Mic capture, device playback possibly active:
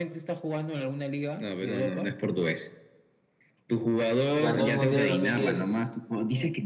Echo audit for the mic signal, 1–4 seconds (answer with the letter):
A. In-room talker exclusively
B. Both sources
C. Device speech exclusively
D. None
C